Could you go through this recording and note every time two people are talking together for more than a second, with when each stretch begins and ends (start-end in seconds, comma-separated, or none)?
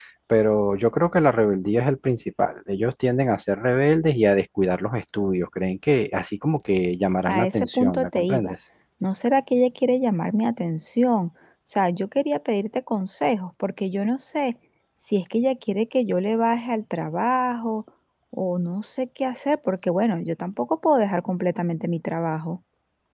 7.3-8.5